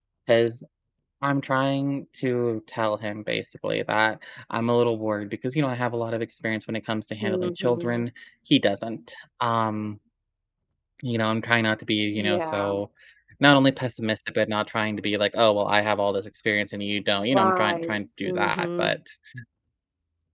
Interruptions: present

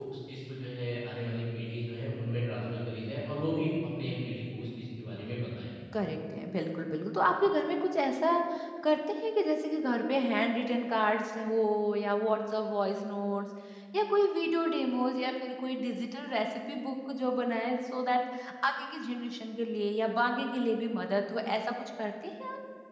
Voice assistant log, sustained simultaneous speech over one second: none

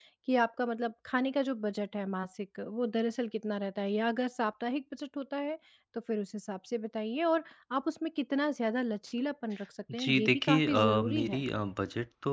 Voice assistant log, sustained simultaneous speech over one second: present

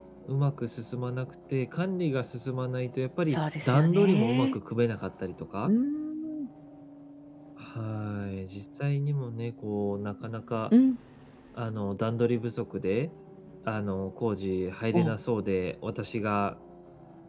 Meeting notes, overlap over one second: present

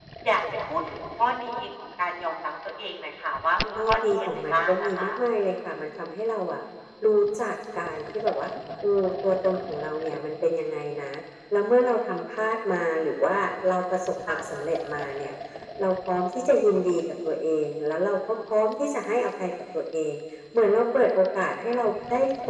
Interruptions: present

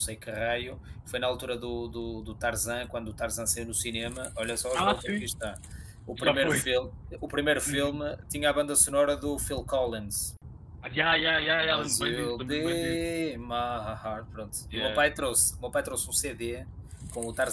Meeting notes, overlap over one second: present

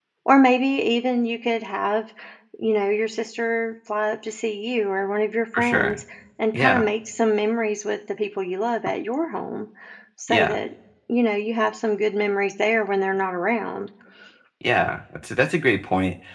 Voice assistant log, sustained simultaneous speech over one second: none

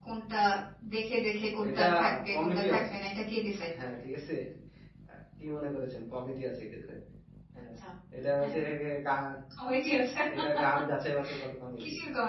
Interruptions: present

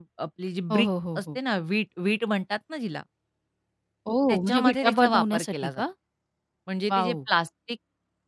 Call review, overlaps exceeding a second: present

